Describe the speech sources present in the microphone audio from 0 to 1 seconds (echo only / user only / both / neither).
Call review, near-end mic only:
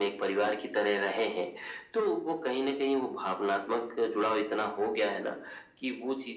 echo only